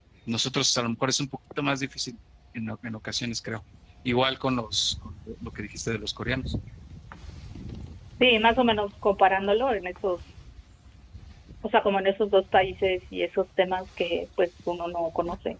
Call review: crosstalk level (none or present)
none